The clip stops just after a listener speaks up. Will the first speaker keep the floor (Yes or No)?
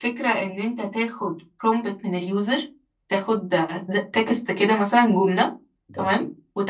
Yes